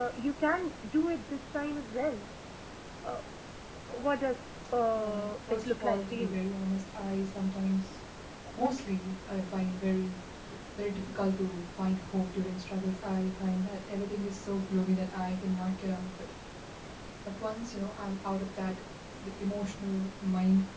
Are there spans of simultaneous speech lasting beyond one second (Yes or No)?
Yes